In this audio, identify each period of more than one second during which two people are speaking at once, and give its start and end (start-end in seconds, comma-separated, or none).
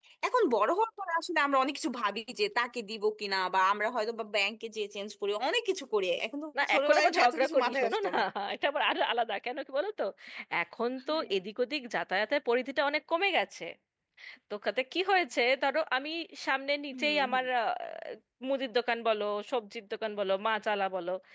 6.6-8.1